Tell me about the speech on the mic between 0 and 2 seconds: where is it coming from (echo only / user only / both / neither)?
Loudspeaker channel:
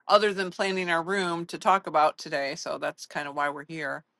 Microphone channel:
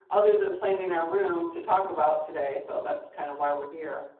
echo only